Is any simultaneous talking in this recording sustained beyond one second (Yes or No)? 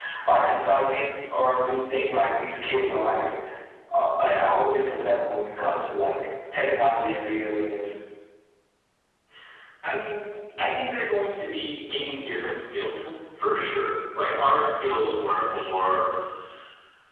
No